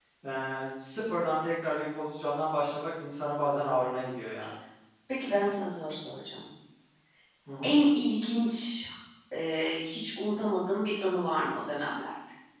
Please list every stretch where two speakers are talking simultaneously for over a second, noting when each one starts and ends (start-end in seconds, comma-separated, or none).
none